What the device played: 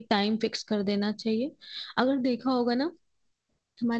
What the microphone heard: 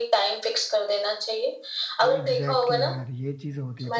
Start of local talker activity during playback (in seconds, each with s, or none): 2.0 s